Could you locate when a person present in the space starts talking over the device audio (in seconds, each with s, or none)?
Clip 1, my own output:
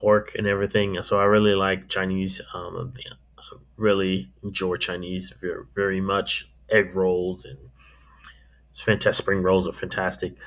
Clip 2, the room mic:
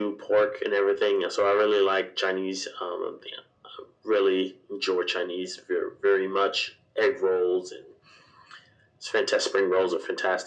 none